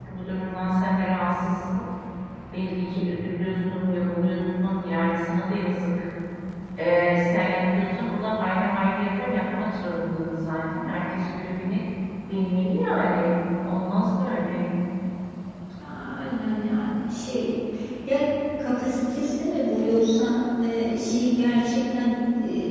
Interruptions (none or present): none